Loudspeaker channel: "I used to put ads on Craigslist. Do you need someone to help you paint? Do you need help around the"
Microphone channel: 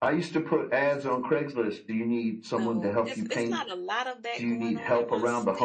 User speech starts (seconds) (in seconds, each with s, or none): 2.5 s